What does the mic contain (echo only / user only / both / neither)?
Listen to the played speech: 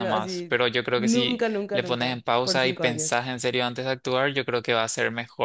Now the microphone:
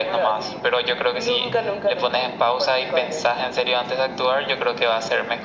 echo only